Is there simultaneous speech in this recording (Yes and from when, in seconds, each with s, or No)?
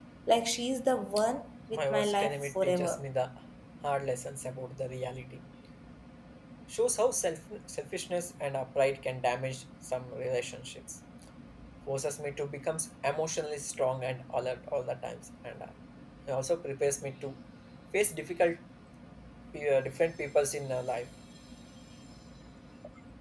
Yes, from 1.7 s